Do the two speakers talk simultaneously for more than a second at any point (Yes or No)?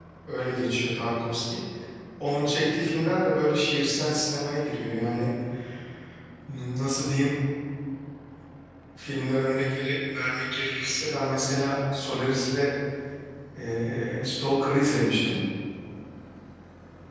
No